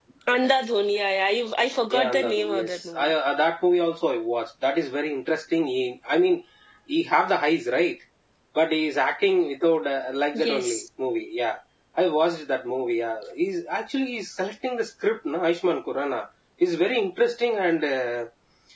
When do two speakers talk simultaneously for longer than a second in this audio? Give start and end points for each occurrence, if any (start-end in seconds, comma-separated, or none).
1.9-3.1